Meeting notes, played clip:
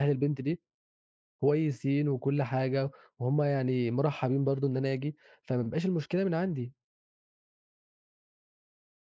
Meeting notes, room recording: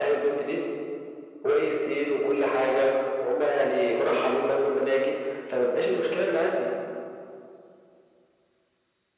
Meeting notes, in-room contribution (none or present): none